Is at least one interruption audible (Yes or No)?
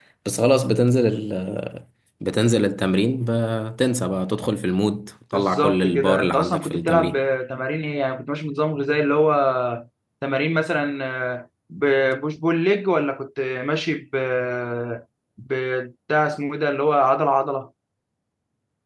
Yes